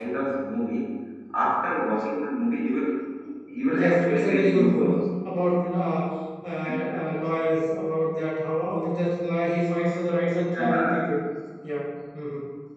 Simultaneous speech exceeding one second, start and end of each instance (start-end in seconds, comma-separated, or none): 3.7-5.0